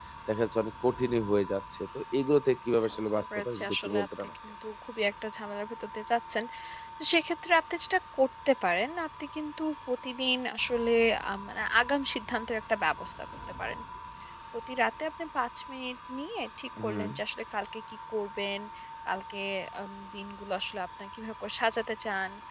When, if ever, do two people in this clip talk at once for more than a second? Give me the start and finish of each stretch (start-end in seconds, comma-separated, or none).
2.7-4.3